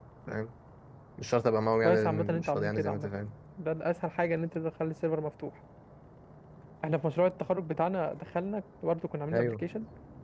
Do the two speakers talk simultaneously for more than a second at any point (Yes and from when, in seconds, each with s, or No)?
Yes, from 1.8 s